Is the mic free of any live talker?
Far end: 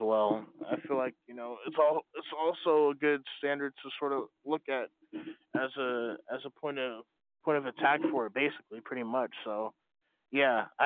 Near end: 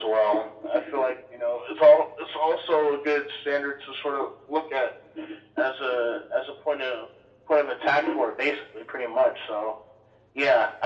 Yes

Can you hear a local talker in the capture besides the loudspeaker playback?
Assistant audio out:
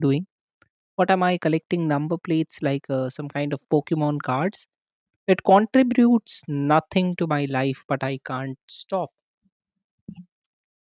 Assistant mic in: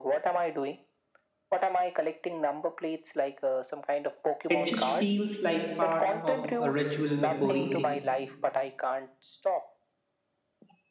Yes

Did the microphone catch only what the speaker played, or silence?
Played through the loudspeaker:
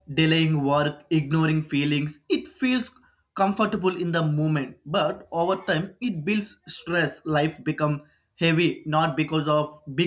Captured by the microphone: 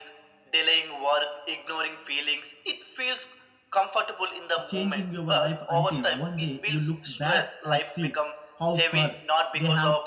No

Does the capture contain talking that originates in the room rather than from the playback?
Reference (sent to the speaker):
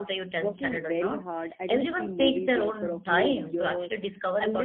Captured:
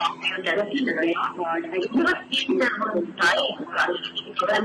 No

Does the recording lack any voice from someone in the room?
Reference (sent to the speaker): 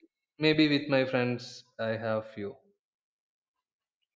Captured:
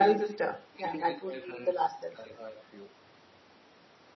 No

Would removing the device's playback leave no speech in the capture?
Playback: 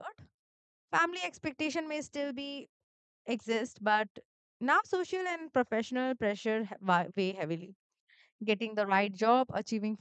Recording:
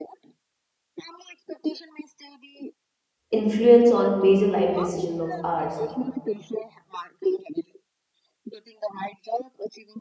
No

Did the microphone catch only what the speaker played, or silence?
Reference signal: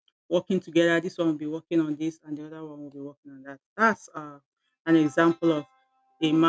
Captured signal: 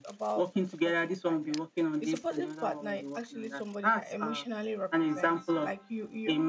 No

